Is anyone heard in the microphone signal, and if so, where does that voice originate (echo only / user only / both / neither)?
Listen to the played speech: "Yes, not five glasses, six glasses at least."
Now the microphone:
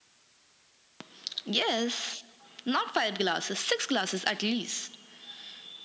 echo only